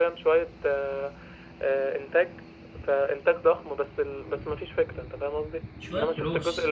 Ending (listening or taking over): listening